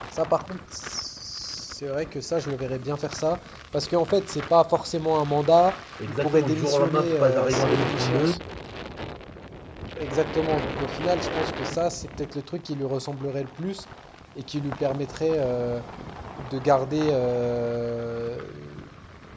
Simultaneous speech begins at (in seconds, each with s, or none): 6.0 s